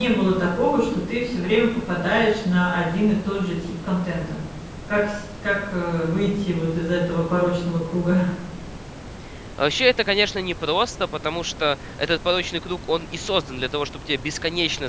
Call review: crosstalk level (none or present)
none